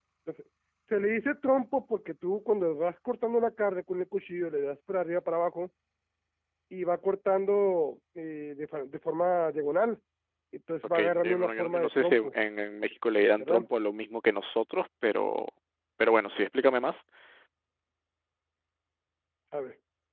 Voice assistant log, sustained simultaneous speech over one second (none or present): present